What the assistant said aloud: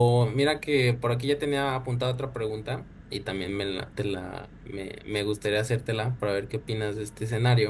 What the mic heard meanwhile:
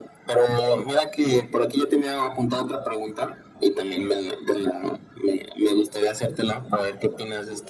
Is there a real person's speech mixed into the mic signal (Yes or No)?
No